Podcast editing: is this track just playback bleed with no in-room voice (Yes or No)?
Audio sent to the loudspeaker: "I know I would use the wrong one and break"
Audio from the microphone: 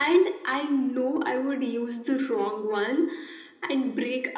Yes